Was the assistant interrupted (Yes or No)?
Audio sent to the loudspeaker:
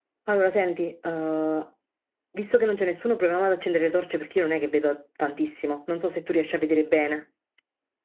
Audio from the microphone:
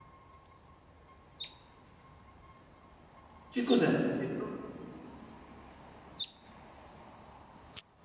Yes